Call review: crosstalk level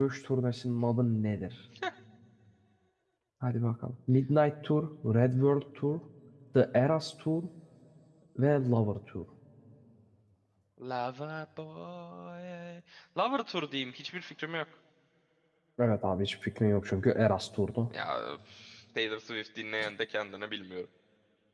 none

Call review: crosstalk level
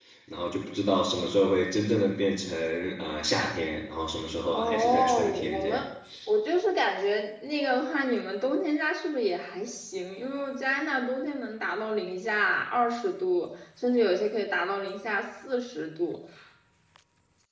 present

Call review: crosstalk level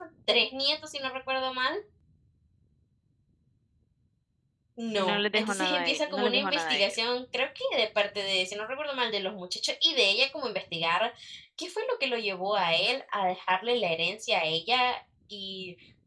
present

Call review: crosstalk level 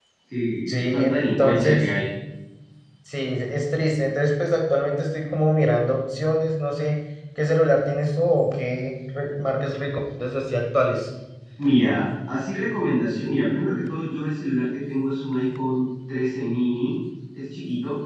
present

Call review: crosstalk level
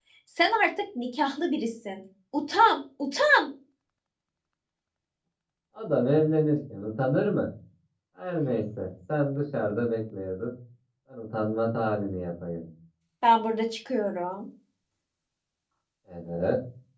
none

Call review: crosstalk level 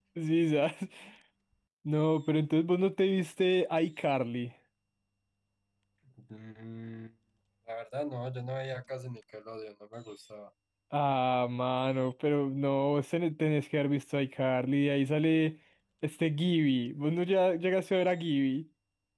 none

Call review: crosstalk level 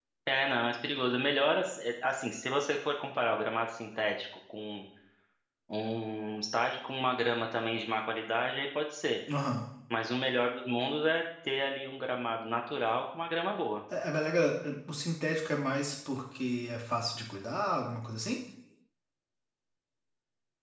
none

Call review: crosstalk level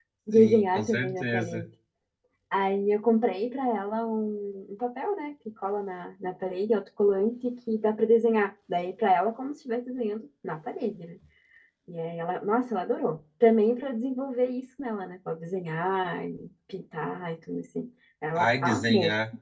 present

